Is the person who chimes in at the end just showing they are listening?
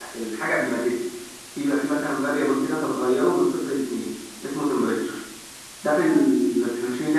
Yes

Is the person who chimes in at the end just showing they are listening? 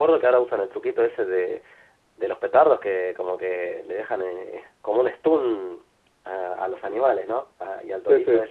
Yes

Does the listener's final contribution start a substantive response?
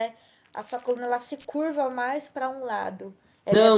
Yes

